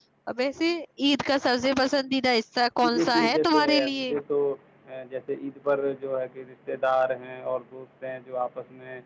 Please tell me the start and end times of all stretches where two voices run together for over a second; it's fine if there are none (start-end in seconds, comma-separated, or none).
2.8-4.1